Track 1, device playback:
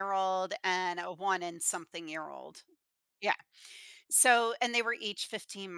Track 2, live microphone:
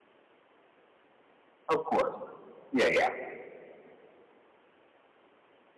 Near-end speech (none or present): present